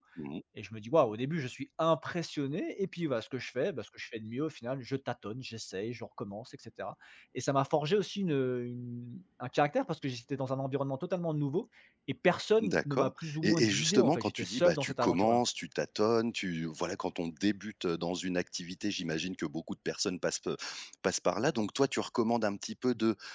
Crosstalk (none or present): present